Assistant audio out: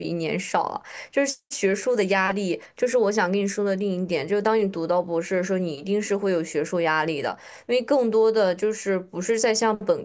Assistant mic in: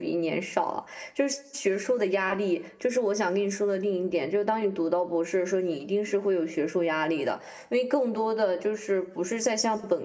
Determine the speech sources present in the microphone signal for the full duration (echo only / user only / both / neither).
echo only